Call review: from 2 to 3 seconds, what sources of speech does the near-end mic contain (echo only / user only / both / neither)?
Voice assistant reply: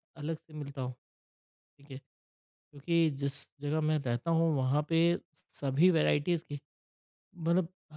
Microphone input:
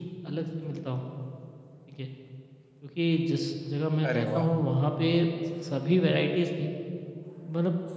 echo only